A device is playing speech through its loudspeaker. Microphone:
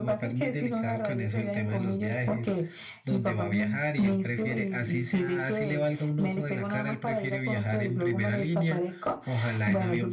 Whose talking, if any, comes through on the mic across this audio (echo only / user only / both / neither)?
echo only